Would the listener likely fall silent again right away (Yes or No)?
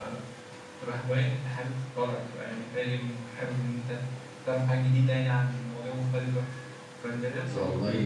No